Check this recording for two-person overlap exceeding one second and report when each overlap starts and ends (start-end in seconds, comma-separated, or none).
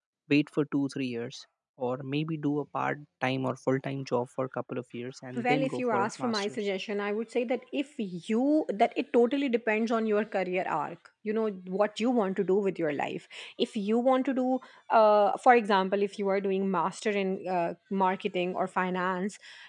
5.3-6.7